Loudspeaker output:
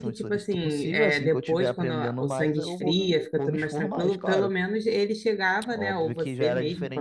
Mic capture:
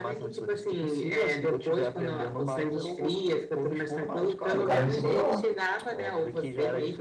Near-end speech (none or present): present